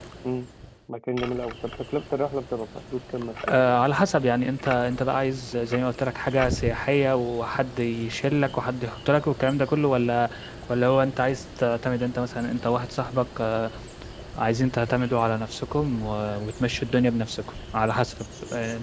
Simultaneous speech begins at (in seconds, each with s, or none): none